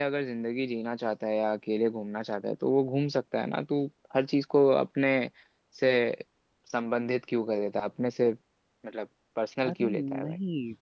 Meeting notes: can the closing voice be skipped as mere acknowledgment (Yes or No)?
No